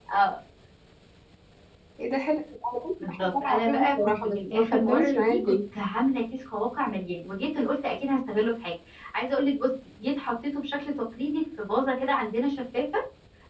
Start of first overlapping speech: 3 s

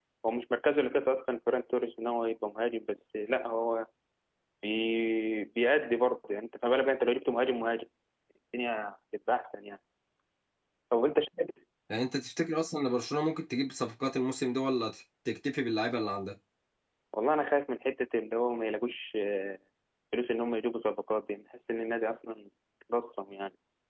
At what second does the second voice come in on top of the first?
none

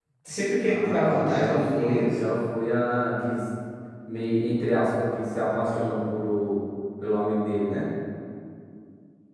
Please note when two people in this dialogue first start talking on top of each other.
1 s

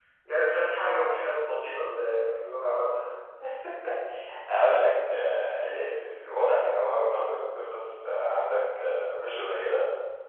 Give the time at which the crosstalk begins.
none

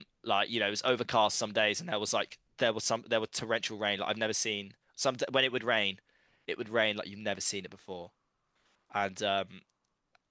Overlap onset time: none

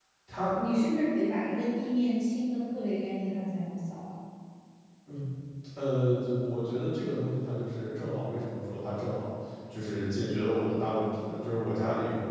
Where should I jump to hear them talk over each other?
none

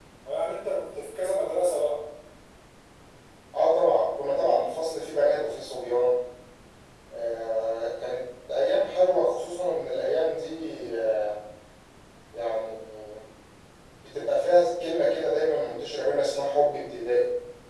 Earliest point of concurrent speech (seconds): none

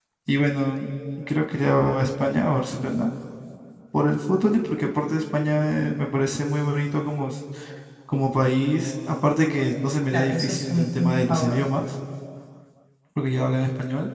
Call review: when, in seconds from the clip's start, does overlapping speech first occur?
10 s

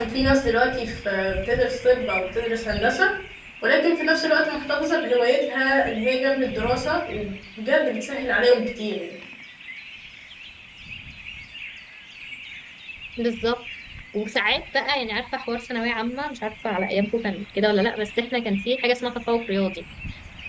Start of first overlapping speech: none

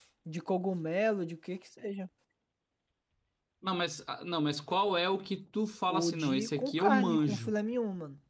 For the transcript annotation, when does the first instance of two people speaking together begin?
6 s

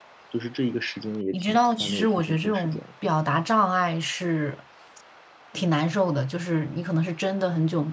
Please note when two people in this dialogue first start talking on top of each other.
1 s

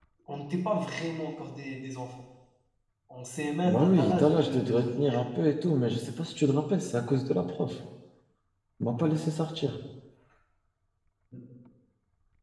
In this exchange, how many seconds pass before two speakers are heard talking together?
4 s

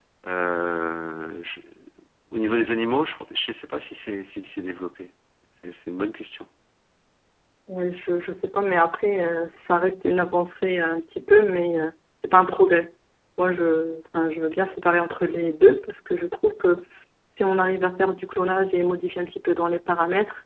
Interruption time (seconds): none

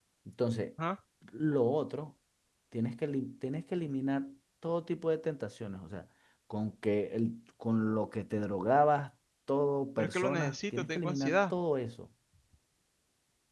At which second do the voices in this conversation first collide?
10 s

